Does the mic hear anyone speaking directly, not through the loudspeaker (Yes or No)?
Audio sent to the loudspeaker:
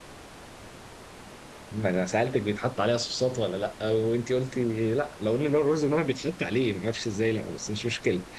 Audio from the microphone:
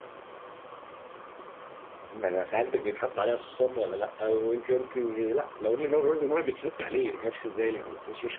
No